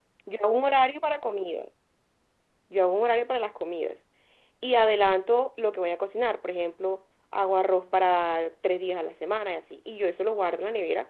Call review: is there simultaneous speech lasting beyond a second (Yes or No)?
No